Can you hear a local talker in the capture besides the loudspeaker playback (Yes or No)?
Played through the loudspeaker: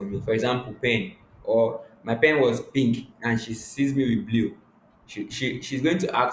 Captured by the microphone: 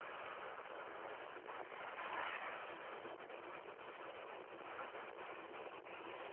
No